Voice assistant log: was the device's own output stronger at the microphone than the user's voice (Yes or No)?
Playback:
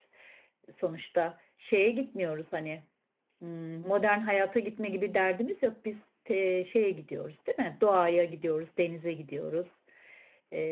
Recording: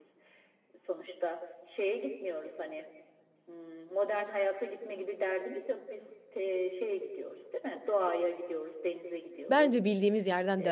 No